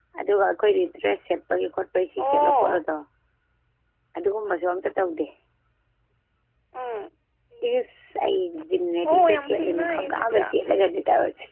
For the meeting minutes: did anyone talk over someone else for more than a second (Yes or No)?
Yes